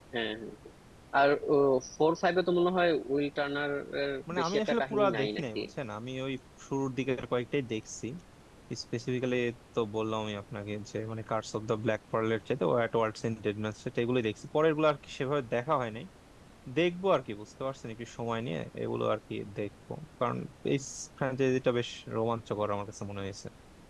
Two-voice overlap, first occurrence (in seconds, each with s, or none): 4.3 s